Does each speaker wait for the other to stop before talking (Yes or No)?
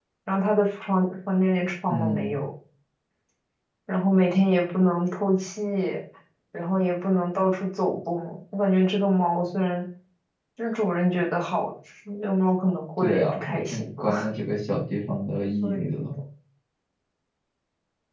No